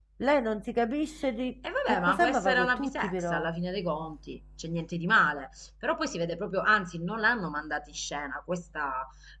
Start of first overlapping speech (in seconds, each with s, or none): 1.6 s